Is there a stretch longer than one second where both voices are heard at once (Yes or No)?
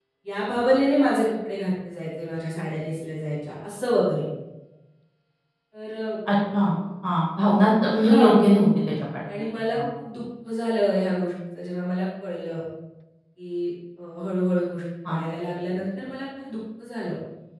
No